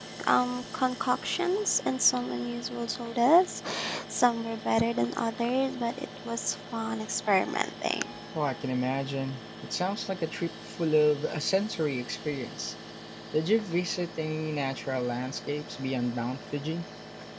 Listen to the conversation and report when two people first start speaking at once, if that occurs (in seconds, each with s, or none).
none